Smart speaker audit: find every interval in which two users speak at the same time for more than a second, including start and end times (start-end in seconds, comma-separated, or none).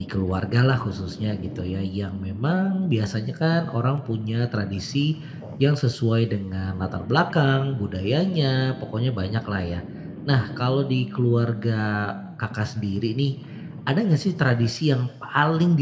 none